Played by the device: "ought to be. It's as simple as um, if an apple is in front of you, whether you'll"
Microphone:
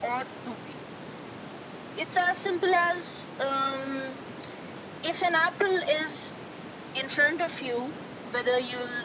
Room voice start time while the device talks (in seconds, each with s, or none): none